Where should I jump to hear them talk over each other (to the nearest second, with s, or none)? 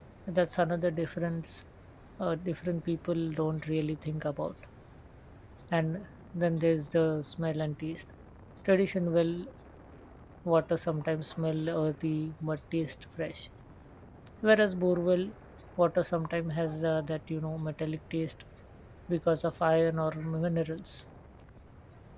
none